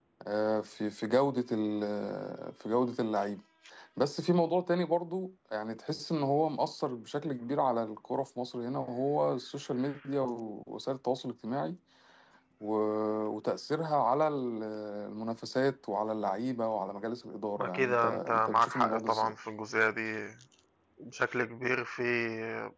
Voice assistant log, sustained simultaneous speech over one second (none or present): present